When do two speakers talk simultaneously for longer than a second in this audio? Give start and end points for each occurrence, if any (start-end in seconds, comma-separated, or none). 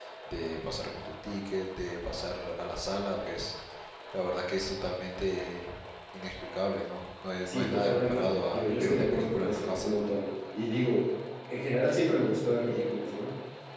7.5-9.9